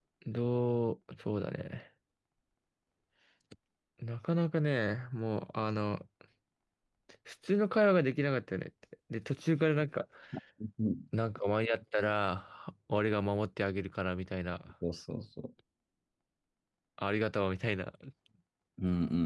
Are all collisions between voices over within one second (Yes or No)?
Yes